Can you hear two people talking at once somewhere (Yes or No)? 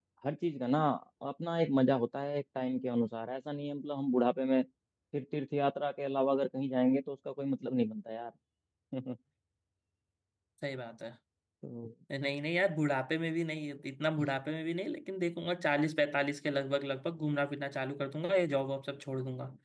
No